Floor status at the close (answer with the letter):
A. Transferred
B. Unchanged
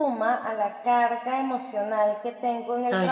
B